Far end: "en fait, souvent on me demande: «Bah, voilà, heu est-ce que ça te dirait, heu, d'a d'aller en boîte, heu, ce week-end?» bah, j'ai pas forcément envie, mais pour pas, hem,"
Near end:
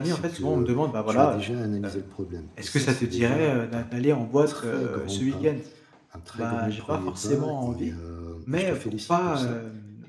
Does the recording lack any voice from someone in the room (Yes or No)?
No